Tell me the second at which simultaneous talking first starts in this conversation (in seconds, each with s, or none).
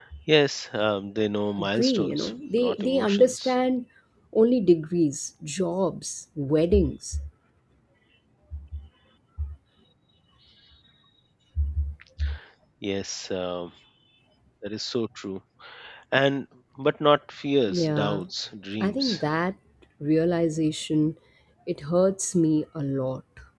1.6 s